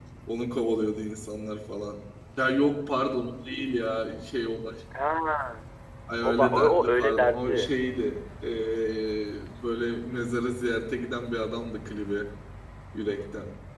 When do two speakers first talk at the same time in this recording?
6.2 s

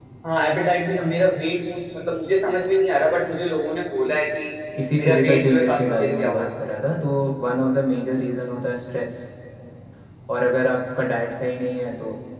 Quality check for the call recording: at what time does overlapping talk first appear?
4.9 s

